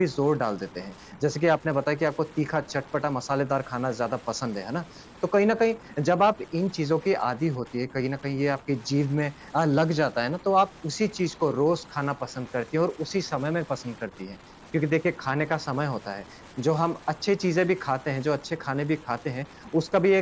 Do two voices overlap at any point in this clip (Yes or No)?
No